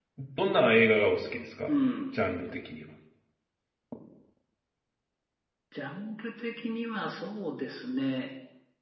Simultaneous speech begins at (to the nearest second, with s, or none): none